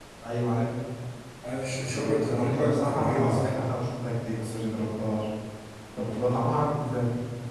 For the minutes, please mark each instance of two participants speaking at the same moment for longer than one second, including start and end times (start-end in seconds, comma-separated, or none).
1.6-3.5